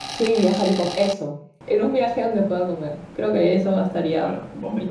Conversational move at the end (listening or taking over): taking over